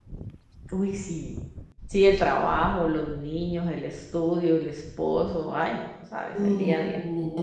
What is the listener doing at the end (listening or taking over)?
taking over